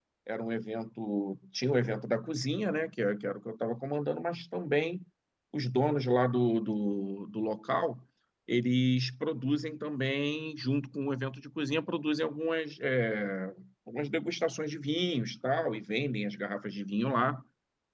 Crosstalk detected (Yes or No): No